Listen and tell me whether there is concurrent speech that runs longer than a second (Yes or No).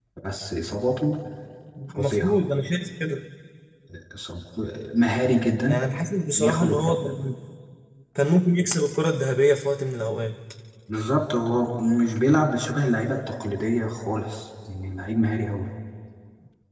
No